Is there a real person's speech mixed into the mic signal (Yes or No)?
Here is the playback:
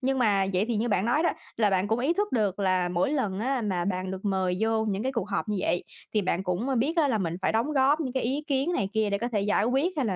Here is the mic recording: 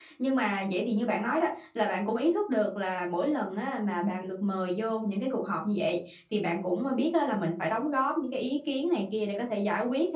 No